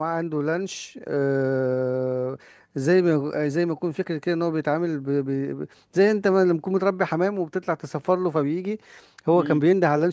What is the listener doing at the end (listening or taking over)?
listening